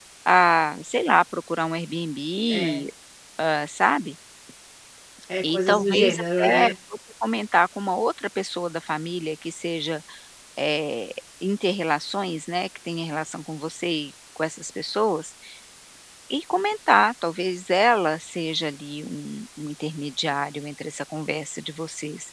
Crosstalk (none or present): present